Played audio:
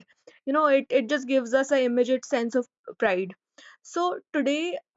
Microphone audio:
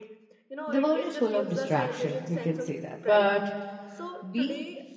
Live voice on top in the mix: Yes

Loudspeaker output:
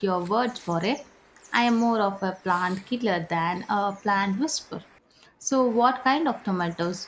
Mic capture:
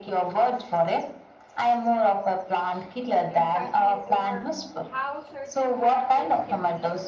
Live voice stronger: No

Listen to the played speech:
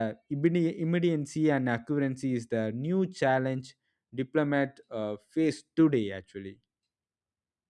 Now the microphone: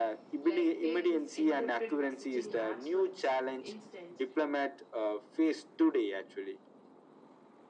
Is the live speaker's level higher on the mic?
No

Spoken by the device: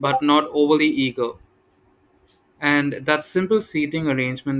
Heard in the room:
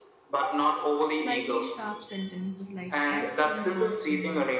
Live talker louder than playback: No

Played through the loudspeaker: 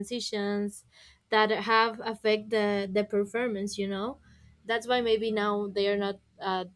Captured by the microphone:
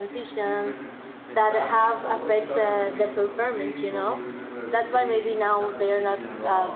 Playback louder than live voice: Yes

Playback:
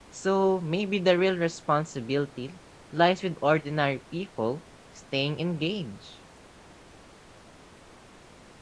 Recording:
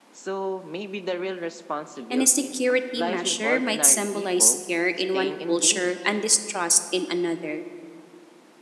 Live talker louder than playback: Yes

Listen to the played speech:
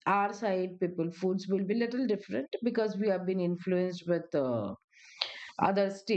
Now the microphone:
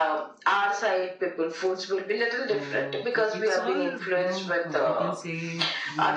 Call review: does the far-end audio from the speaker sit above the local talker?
Yes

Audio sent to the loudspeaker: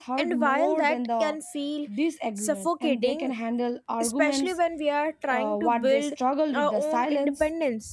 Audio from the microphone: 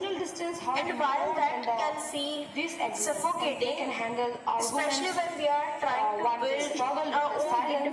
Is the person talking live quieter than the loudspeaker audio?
Yes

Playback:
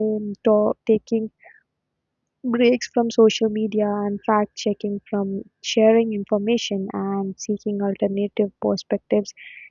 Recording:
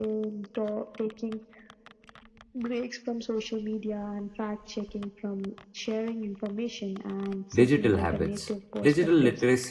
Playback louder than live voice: No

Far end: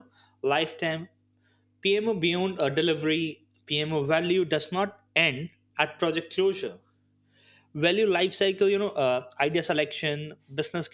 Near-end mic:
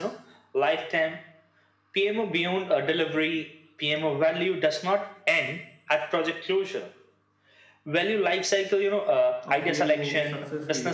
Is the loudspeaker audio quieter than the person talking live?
No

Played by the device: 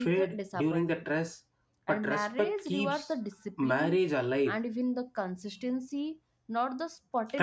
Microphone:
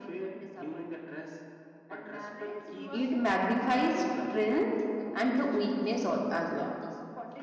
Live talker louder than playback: Yes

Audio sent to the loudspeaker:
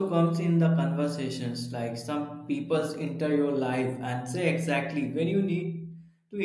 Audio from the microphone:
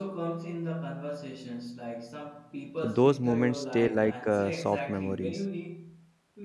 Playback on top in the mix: No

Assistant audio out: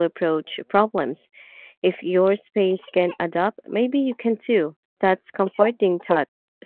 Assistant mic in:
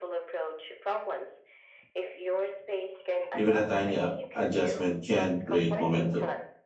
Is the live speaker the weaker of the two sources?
No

